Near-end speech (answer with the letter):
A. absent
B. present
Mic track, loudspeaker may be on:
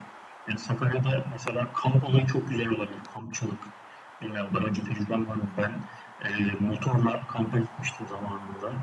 A